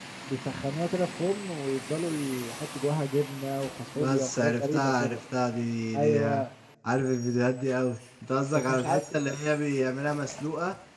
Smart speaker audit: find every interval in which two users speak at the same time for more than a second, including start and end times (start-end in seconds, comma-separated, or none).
4.0-5.2